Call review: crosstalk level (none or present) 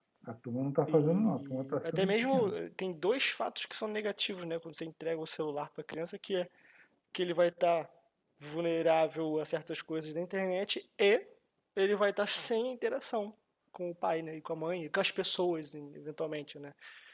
present